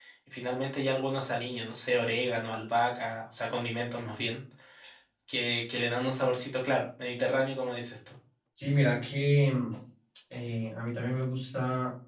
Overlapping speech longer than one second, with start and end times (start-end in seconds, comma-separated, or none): none